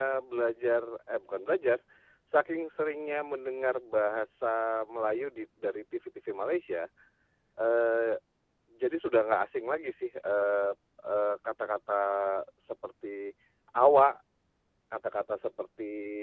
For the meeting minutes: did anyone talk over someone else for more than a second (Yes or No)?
No